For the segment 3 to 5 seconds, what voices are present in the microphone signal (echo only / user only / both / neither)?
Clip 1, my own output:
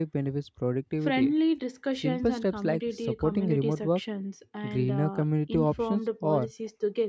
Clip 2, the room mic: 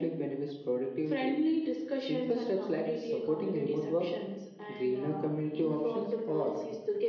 echo only